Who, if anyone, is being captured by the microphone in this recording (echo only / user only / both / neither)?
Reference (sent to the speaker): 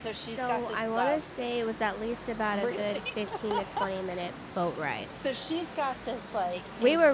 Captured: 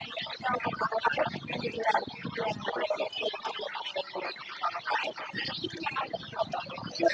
echo only